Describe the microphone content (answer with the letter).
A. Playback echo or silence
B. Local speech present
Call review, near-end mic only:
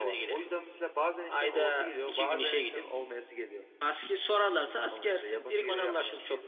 A